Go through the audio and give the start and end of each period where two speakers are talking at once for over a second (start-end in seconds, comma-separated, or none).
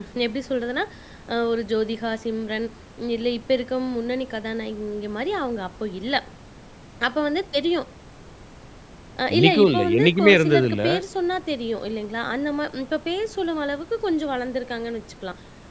9.3-10.8